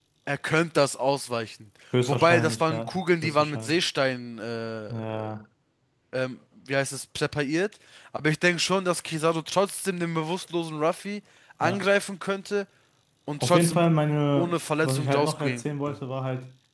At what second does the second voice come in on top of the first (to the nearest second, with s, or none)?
2 s